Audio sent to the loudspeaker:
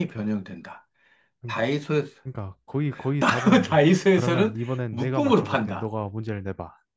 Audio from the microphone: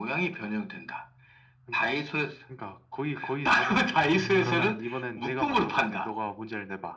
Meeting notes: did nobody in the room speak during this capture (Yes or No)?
No